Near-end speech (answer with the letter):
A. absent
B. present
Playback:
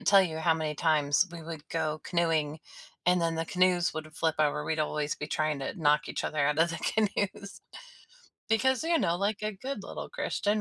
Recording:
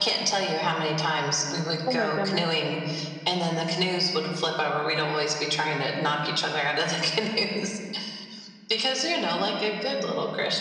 B